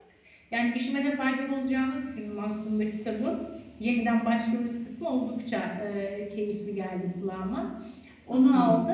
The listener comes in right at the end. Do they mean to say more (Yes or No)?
No